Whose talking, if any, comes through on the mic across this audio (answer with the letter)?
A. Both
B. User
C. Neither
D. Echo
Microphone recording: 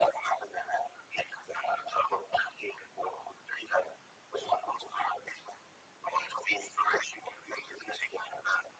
D